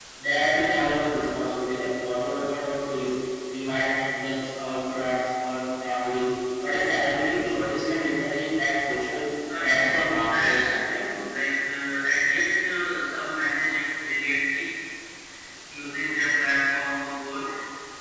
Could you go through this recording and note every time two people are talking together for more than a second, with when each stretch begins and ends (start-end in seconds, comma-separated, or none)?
9.6-11.0